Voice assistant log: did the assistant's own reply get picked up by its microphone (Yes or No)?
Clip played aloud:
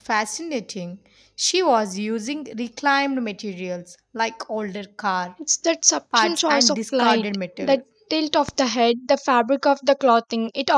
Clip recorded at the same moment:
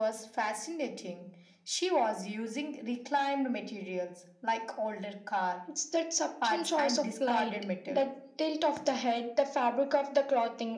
Yes